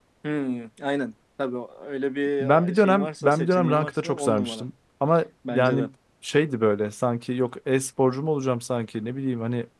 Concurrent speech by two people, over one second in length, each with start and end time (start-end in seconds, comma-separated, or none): 2.4-4.6